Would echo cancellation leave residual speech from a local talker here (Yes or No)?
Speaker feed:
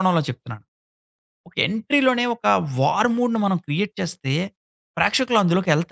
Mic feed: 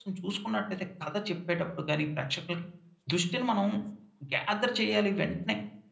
Yes